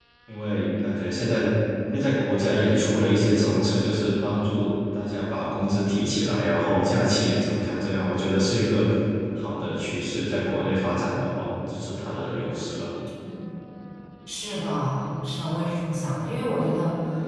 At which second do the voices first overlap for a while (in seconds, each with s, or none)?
none